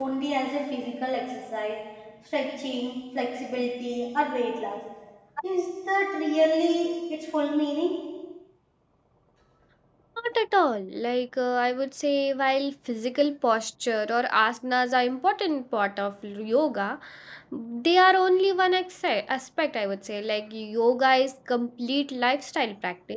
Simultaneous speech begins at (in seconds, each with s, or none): none